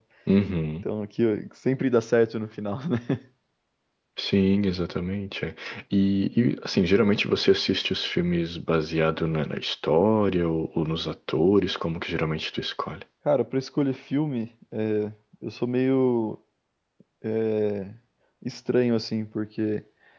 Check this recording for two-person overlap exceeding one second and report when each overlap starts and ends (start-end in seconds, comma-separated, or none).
none